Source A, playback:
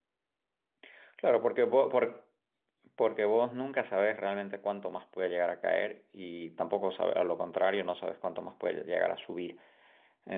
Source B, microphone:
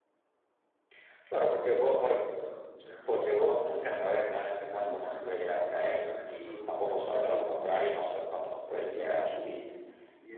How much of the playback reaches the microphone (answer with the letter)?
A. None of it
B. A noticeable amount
B